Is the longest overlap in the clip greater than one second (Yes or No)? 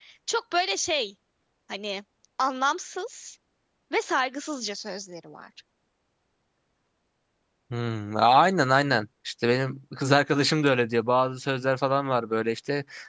No